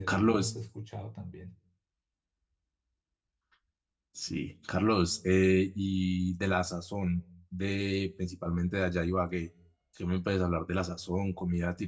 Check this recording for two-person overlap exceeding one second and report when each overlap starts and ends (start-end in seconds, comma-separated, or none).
none